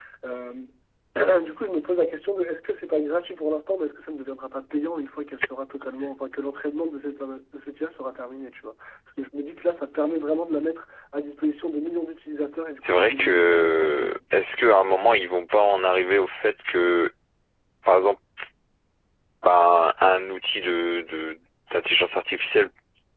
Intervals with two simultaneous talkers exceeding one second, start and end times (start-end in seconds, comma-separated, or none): 12.9-14.2